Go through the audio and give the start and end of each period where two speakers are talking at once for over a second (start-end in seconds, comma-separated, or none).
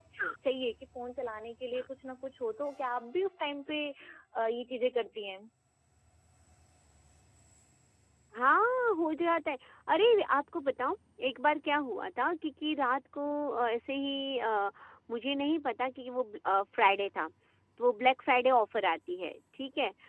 none